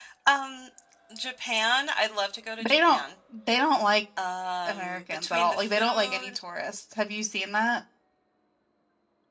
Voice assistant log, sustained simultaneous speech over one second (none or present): present